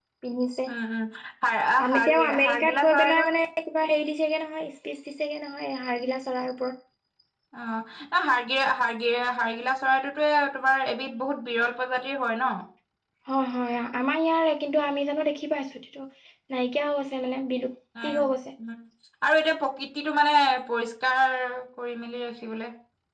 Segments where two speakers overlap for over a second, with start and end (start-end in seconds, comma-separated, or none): 1.9-3.2